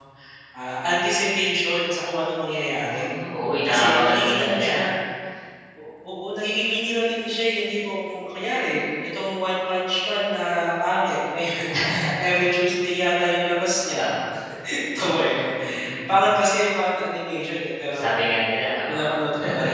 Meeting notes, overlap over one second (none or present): present